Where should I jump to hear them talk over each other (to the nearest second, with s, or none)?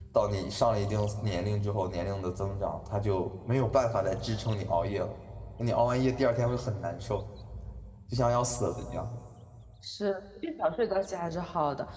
none